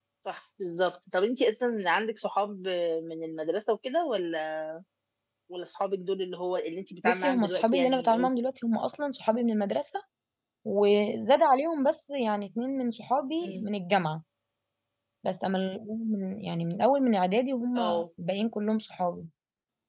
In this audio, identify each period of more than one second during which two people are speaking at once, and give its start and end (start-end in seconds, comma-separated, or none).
7.0-8.3